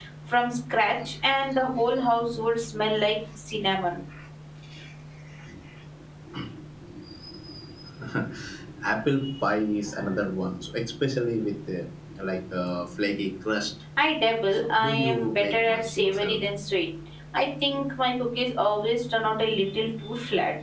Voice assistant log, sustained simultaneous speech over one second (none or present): present